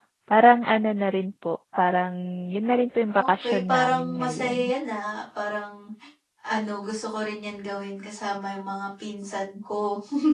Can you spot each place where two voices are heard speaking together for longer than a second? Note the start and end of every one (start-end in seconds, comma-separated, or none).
3.2-4.7